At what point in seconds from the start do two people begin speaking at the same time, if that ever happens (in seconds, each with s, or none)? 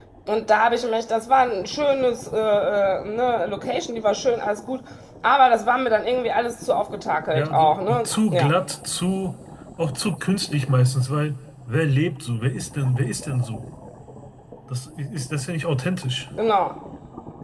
7.3 s